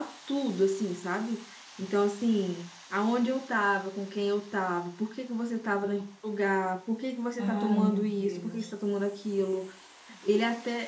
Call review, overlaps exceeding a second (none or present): present